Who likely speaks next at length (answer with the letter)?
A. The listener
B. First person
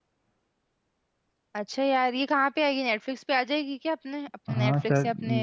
A